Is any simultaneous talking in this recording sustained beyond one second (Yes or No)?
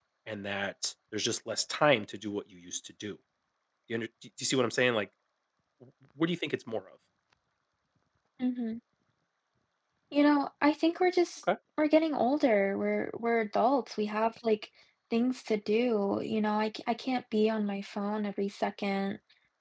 No